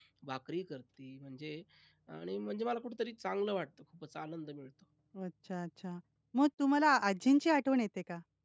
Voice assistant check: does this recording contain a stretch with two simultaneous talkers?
No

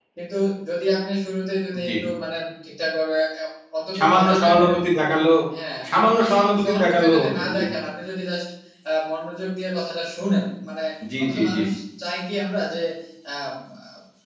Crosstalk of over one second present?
Yes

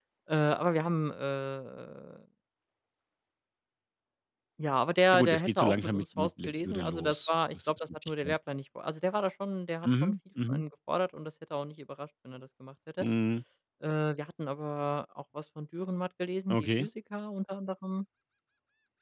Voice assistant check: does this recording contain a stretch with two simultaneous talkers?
Yes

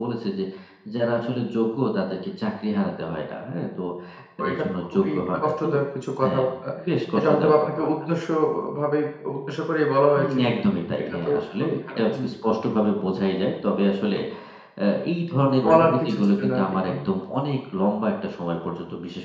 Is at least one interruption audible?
Yes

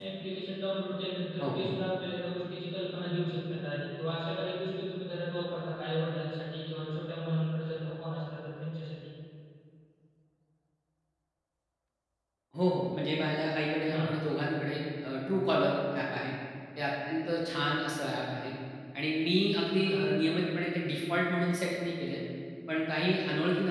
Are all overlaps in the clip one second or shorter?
Yes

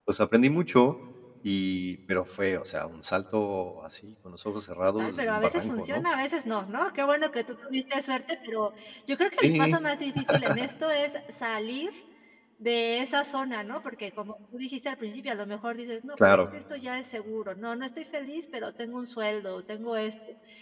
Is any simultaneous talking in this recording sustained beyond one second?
Yes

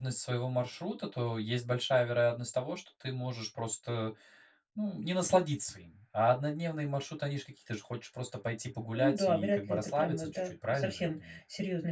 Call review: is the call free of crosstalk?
No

